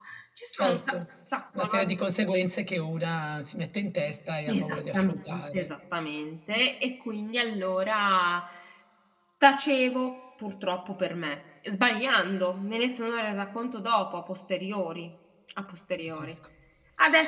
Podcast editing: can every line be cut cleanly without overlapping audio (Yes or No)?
No